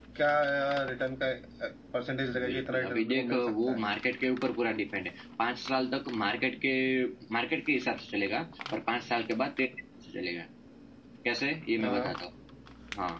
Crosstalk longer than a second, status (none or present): present